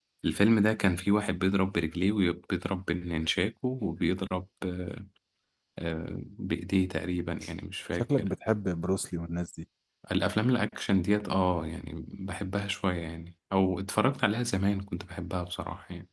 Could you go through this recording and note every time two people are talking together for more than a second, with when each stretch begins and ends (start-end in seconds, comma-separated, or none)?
none